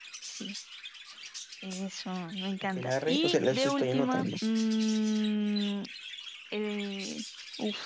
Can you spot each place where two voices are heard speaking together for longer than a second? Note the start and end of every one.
2.8-4.3

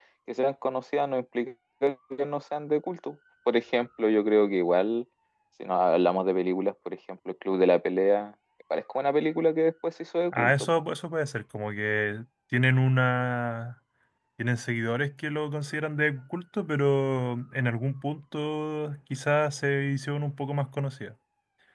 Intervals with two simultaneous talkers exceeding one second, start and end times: none

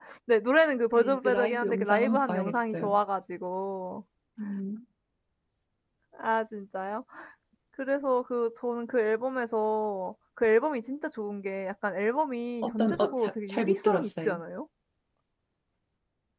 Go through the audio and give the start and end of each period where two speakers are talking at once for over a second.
0.9-3.0, 12.6-14.4

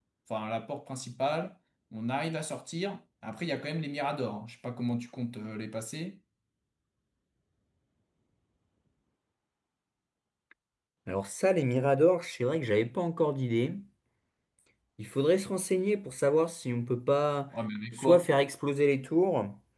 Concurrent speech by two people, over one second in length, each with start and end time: none

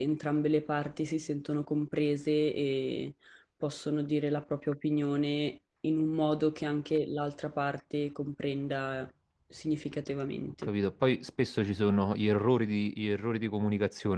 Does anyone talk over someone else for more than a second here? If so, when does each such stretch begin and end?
none

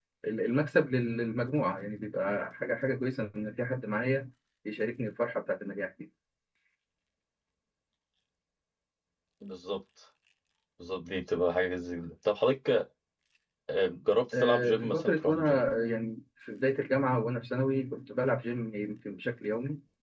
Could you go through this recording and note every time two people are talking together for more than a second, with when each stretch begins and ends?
14.3-15.6

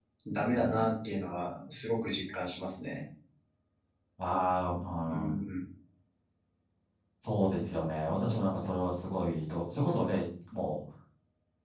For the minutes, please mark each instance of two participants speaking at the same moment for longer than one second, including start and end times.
none

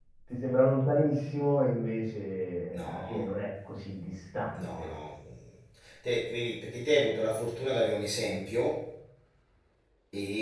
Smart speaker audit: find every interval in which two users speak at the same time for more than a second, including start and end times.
none

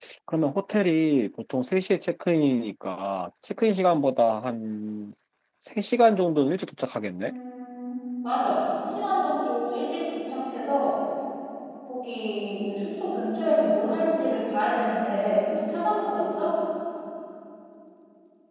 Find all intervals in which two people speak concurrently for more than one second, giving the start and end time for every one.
none

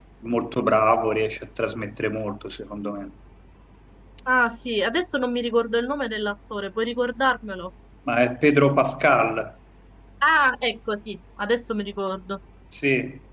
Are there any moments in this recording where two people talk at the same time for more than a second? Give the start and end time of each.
none

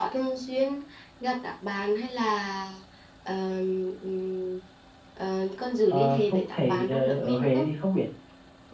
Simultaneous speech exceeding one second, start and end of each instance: 5.9-7.7

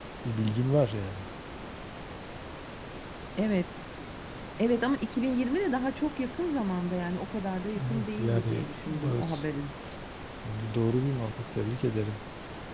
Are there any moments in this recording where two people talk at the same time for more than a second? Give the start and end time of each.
7.8-9.4

